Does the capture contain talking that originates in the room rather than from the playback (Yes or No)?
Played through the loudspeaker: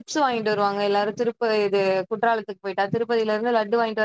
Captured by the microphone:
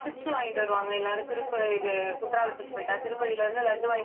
Yes